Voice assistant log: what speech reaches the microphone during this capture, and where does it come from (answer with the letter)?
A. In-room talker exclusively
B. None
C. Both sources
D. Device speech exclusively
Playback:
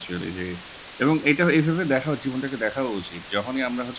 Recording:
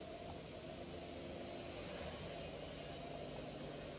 B